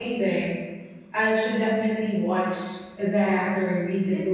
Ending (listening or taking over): taking over